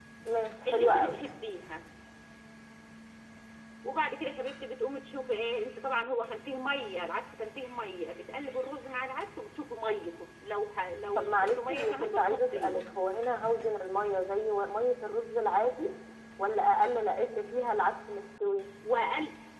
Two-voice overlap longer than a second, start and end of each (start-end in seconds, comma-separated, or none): 11.2-12.8